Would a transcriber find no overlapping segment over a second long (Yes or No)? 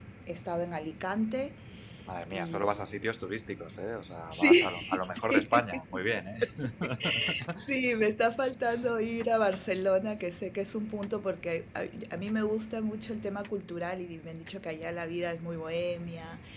No